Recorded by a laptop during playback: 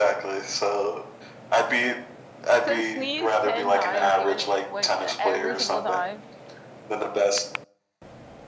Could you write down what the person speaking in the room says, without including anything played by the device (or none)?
So sneeze 10 times, even when every single time.